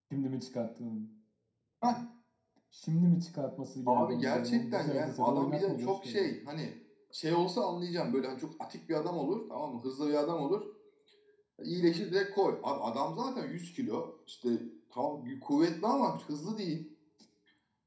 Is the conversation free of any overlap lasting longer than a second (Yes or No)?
No